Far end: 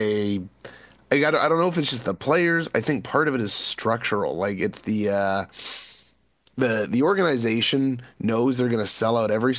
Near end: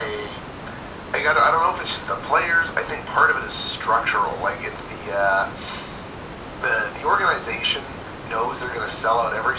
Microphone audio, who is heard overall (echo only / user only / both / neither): echo only